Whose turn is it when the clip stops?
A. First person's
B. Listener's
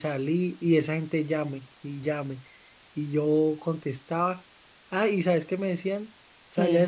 A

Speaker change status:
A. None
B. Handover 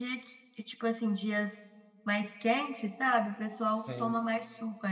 A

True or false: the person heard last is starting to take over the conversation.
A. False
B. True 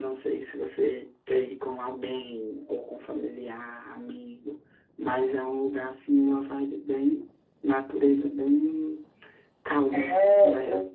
B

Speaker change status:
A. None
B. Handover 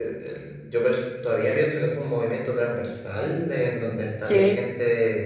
A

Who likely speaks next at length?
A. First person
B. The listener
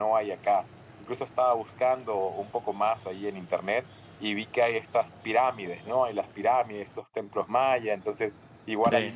A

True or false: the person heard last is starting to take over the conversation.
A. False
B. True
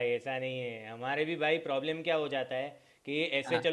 A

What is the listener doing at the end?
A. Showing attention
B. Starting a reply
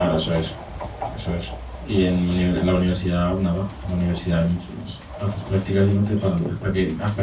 A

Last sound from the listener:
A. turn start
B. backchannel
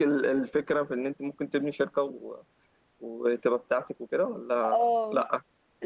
A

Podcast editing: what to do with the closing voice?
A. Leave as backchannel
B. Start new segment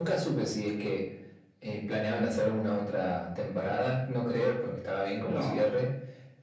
A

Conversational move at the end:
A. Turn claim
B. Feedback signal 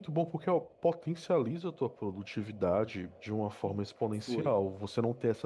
B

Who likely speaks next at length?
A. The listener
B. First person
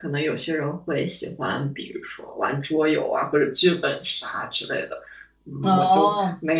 B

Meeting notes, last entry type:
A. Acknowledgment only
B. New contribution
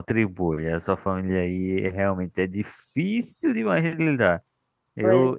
A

